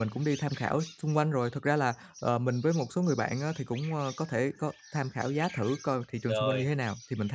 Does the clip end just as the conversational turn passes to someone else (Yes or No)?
No